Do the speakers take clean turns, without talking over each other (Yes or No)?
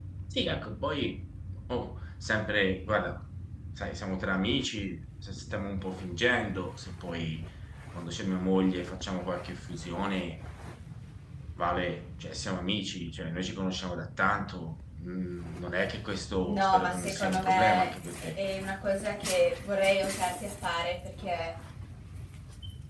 No